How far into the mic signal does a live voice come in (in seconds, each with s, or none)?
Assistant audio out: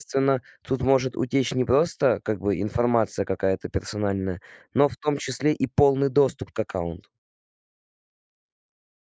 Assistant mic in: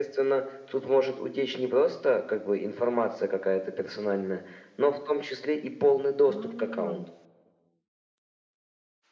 6.3 s